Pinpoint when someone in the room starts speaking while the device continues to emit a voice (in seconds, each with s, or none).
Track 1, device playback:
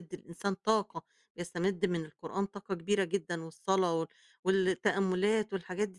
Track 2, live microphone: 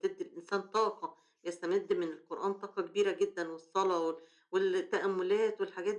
none